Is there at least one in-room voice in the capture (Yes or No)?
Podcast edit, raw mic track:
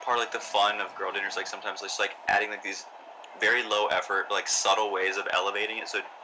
No